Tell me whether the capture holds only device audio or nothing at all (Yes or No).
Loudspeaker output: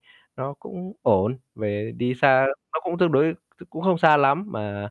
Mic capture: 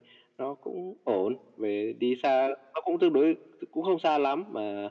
Yes